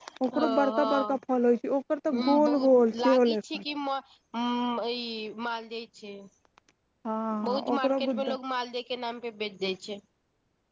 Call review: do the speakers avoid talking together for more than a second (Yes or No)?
No